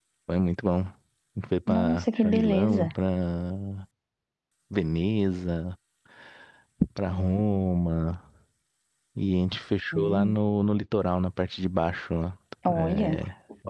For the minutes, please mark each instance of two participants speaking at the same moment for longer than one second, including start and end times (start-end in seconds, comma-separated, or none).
1.7-2.9